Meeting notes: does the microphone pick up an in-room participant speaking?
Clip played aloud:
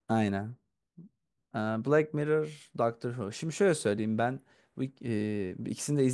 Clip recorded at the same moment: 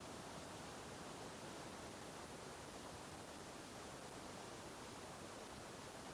No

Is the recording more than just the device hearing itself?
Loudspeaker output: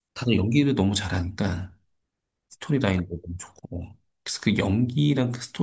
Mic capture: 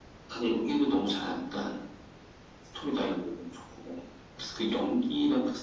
No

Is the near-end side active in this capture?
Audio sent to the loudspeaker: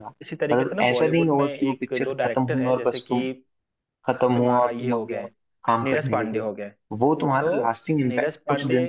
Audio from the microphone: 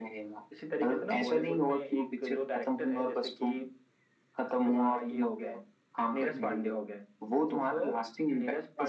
No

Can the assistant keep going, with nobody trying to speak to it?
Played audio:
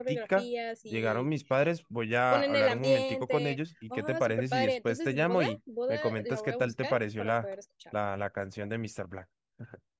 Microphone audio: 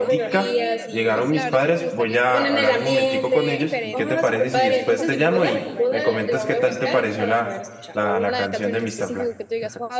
No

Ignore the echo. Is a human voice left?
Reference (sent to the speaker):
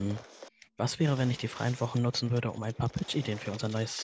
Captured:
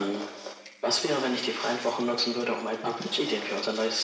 No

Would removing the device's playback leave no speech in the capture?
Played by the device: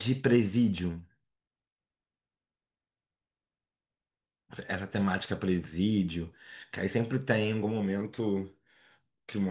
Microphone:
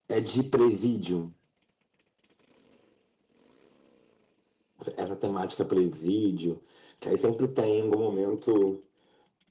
Yes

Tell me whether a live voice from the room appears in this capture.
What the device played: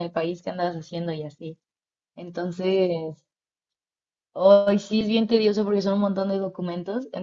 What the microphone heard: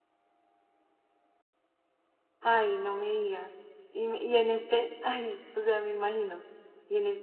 Yes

